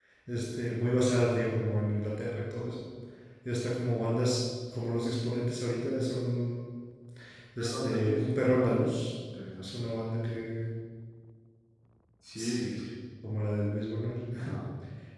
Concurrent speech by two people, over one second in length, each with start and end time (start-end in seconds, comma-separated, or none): 7.6-8.8